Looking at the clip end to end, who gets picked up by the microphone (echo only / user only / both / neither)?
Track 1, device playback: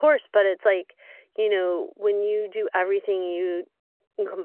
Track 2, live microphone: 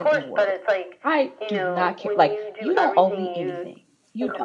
both